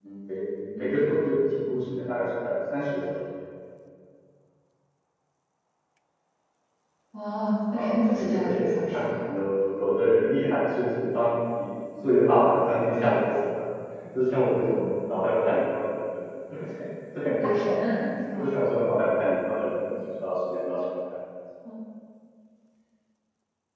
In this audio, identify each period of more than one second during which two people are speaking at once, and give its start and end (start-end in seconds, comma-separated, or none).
7.7-9.1